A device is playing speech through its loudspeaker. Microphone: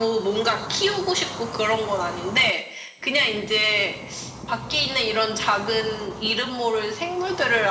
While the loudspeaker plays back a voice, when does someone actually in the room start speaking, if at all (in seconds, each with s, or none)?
none